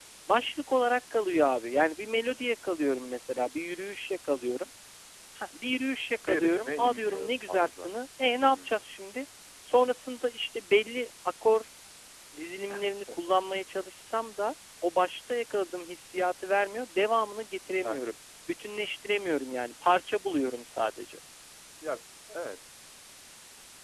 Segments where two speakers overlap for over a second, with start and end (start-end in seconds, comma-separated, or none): 6.3-7.9